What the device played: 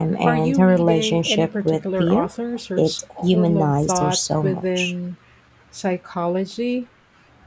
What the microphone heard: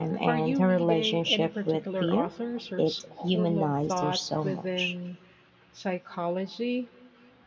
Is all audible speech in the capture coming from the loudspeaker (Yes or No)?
Yes